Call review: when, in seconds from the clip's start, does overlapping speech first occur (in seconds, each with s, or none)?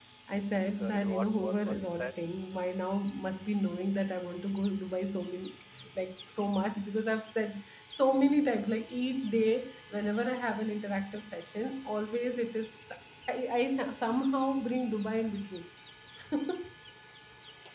0.8 s